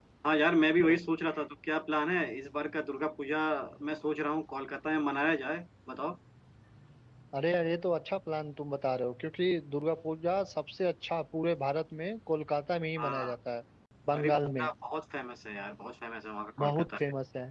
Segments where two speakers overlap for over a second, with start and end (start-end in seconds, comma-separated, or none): none